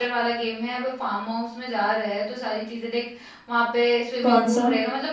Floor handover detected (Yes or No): No